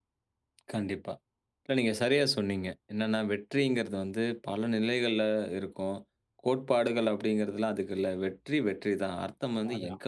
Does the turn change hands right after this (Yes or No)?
No